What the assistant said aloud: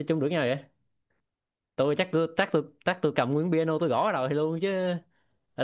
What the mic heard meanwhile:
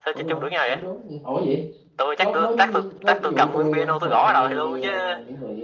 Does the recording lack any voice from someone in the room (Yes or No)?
No